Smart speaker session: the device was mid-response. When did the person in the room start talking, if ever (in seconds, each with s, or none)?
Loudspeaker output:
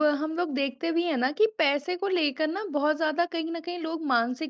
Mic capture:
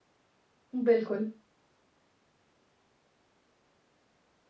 0.7 s